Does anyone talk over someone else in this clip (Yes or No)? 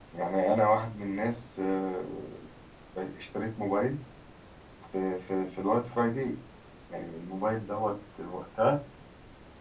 No